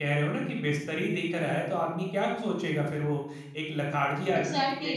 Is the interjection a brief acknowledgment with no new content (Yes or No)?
No